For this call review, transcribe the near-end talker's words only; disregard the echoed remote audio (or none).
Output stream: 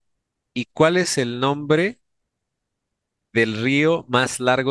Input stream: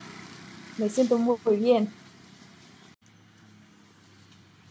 Me siento muy bien.